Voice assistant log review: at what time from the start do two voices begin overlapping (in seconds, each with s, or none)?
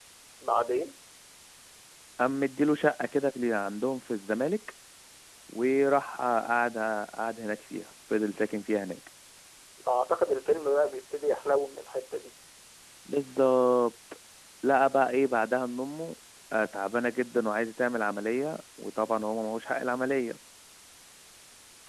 none